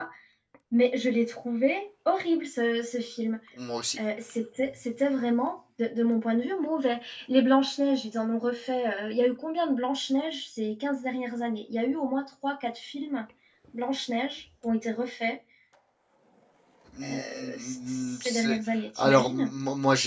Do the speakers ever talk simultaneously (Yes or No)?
Yes